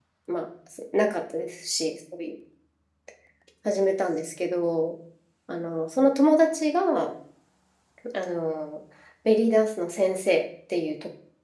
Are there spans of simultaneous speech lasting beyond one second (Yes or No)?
No